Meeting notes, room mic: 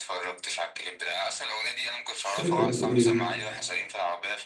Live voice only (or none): مش فاكر كانت بتقول ايه